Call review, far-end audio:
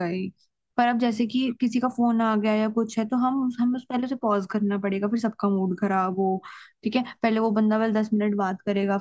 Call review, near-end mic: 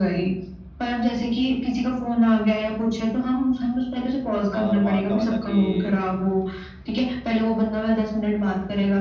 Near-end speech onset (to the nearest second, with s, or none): 5 s